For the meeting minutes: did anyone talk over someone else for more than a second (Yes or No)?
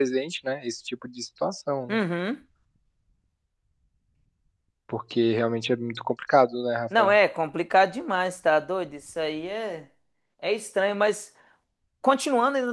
No